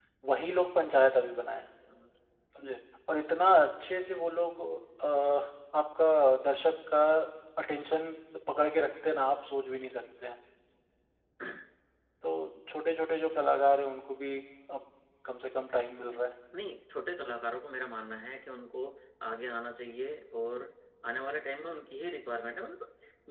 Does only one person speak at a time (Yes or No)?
Yes